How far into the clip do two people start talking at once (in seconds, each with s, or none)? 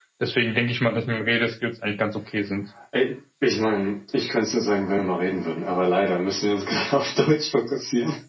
none